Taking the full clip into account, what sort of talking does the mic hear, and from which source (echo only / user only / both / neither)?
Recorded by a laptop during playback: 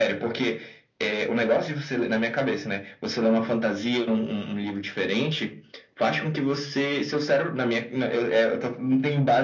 echo only